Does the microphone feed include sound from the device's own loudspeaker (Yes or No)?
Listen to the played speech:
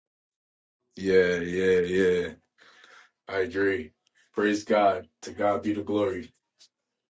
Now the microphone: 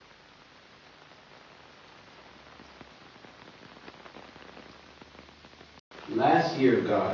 No